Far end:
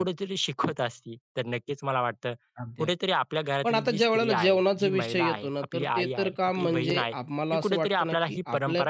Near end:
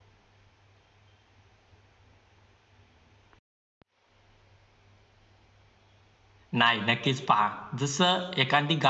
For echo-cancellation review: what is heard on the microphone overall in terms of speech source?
user only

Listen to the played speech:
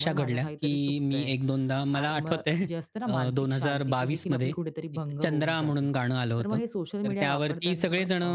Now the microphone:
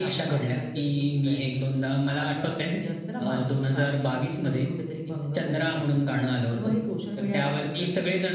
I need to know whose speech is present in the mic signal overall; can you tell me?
echo only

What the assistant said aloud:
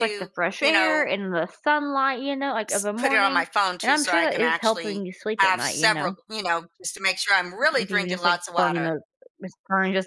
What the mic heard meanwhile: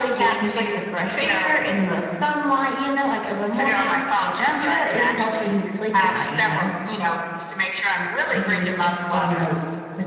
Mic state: echo only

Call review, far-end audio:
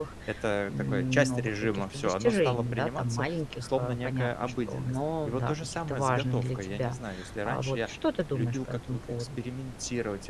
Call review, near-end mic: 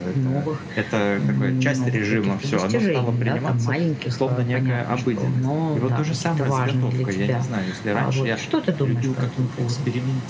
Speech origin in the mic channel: echo only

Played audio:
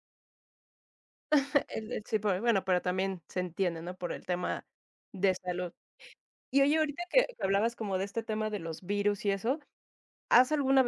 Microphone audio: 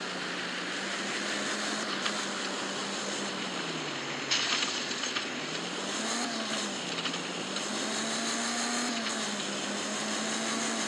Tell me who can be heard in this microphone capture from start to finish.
neither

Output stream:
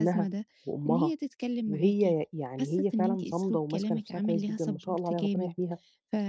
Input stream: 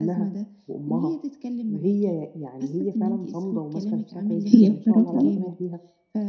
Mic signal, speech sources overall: both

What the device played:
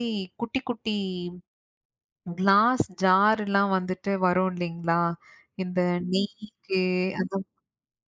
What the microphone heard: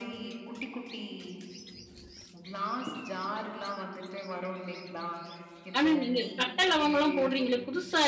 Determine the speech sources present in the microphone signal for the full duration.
both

